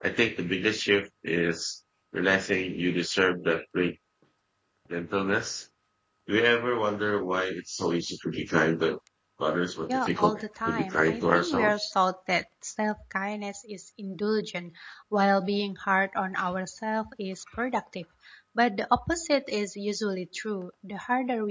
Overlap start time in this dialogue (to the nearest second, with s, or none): 10 s